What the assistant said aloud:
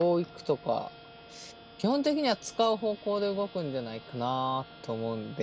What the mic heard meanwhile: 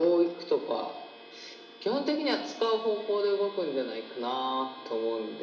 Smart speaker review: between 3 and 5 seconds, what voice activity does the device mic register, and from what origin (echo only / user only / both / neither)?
echo only